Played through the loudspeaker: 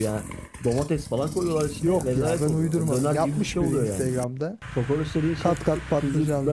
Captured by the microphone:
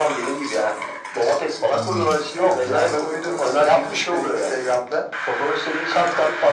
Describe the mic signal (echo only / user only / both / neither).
both